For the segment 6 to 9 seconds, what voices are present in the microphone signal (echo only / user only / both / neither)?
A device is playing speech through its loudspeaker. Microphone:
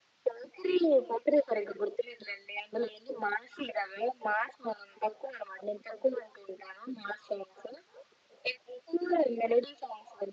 echo only